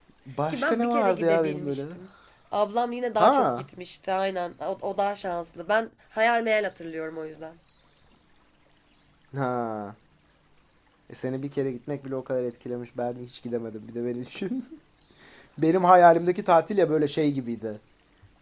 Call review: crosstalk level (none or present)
present